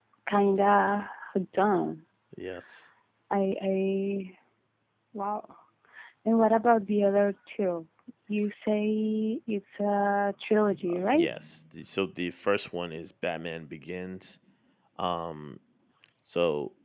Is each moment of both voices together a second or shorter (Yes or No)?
Yes